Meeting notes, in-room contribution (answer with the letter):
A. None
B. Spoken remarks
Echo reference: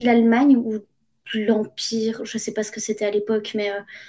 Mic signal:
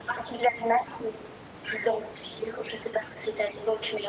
A